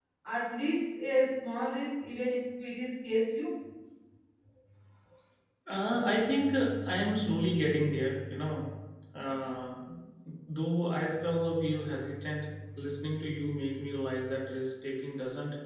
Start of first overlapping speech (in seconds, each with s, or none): none